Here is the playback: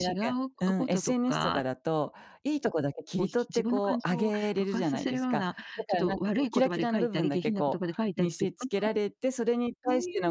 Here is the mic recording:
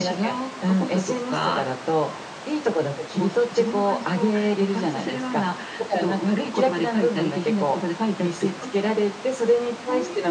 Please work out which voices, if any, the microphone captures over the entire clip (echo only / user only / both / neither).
echo only